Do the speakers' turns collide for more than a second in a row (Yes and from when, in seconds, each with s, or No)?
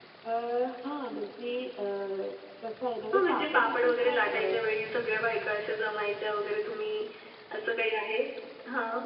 Yes, from 3.1 s